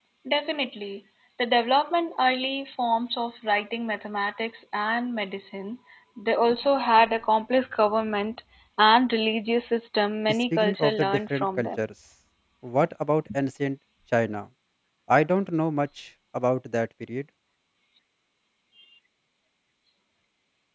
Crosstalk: present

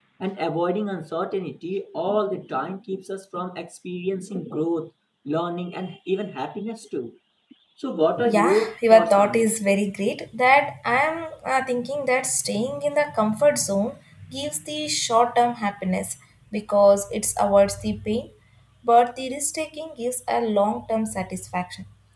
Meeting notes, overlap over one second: present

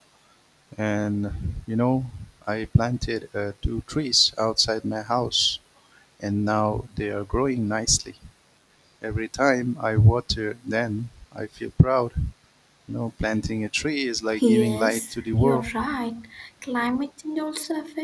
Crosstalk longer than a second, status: present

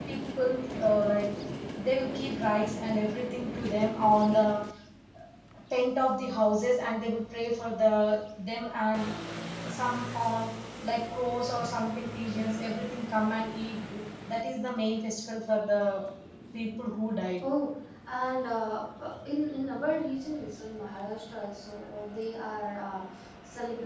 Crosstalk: none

